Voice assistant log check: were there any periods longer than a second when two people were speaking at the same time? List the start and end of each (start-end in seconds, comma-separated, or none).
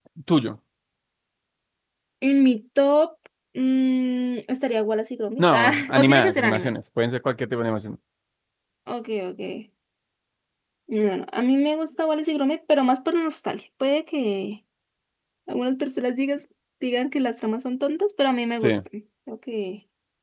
5.4-6.7